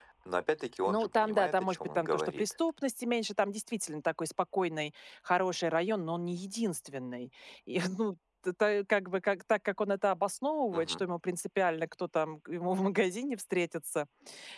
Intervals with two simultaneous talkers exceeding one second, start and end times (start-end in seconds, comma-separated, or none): 0.9-2.5